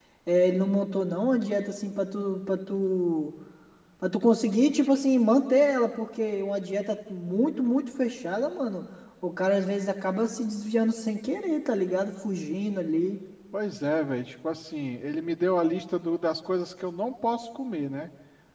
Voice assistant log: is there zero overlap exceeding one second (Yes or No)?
Yes